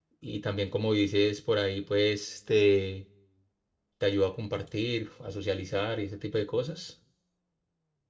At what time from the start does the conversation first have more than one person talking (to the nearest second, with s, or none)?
none